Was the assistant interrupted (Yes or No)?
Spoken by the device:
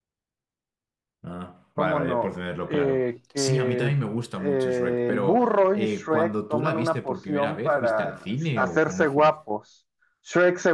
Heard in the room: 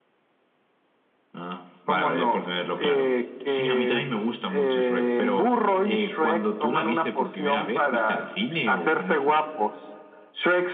No